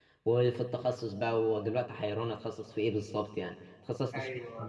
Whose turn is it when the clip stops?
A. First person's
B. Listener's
A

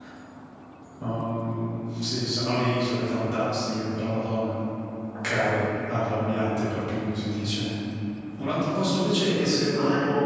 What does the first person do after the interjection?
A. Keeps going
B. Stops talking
A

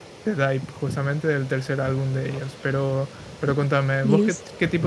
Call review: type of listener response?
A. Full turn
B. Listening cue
B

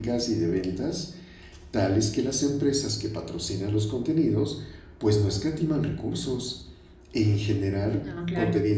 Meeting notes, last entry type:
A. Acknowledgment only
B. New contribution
A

